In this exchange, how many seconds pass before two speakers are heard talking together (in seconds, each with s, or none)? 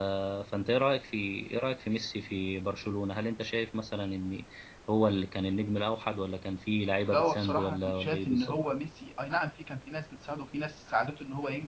7.1 s